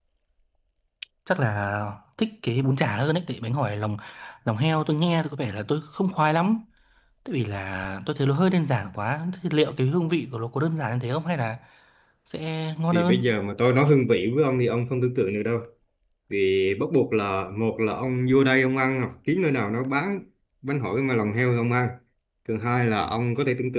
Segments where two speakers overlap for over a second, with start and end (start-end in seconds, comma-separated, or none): none